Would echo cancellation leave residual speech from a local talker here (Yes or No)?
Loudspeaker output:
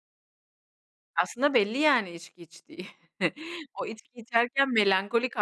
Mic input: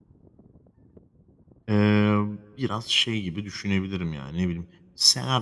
Yes